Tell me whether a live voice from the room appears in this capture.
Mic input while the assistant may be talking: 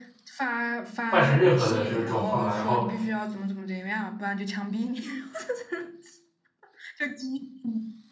Yes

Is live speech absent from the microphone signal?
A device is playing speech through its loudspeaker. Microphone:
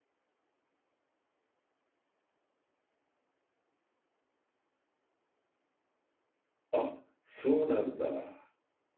No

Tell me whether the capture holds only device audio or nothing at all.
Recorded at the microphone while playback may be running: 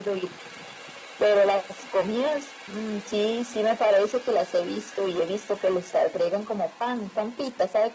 Yes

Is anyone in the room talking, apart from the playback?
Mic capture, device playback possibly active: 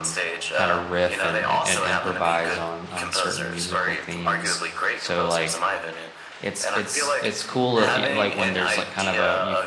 Yes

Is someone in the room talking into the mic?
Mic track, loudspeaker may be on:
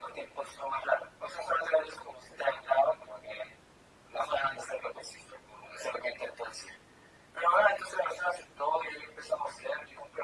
No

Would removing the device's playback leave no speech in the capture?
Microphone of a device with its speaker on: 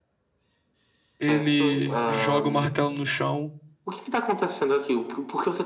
No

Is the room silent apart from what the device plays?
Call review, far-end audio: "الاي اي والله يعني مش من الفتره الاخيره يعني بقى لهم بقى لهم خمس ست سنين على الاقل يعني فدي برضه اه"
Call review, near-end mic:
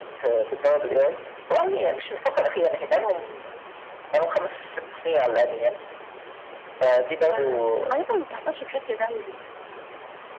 No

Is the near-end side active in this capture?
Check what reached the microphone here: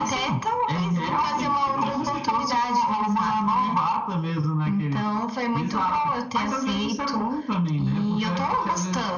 Yes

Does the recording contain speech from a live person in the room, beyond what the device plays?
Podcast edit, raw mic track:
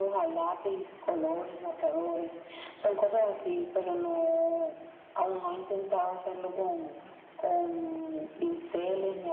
No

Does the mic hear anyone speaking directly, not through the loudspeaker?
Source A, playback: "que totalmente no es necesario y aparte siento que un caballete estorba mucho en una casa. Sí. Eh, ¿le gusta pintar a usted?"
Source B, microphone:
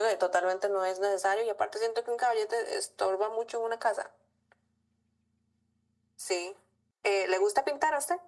No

